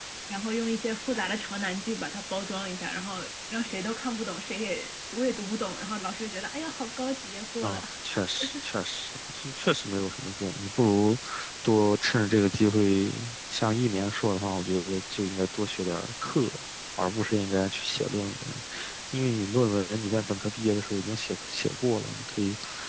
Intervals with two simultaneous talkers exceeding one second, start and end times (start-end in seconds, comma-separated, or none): none